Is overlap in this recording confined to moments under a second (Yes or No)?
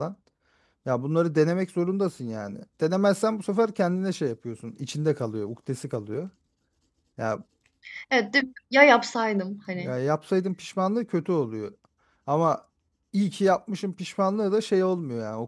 Yes